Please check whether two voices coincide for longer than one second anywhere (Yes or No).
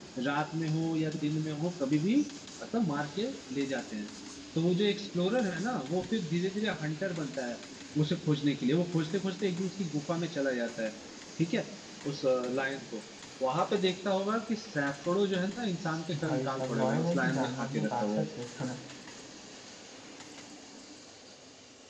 Yes